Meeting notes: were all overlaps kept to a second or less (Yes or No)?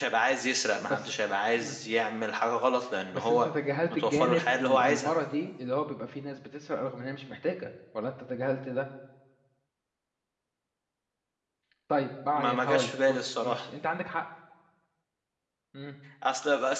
No